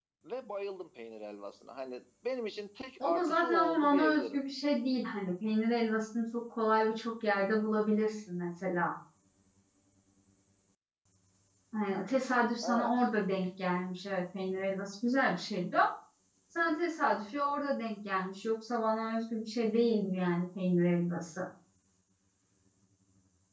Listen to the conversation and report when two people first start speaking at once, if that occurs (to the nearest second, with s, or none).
3 s